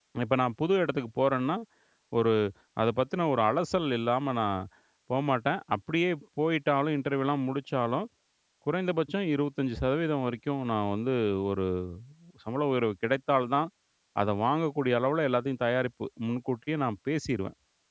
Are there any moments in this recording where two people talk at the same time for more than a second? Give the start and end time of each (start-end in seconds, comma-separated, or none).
none